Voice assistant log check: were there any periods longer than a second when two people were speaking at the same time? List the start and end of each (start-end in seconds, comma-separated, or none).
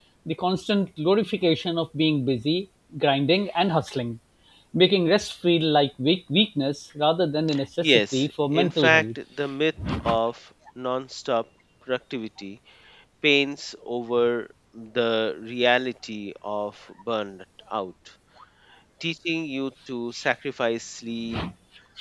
7.8-9.0